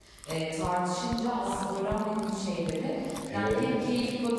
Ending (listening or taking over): listening